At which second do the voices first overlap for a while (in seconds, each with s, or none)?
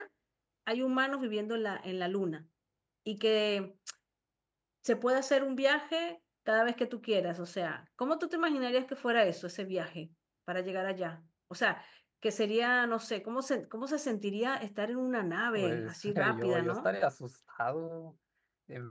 15.6 s